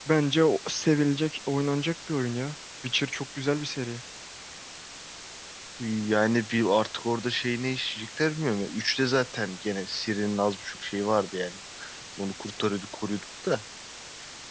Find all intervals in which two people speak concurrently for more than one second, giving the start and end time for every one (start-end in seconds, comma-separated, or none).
none